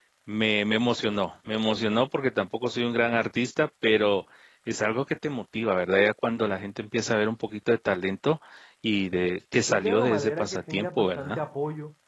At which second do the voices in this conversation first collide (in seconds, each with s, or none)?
9.7 s